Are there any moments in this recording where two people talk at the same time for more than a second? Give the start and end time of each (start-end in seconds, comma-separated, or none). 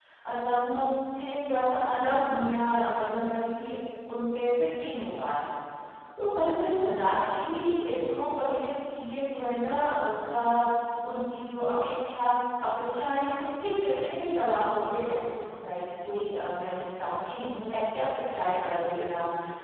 none